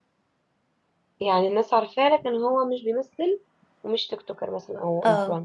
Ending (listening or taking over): taking over